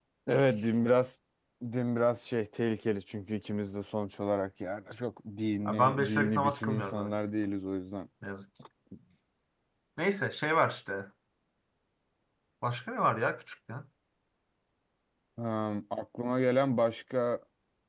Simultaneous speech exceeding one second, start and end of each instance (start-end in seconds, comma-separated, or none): 5.7-7.1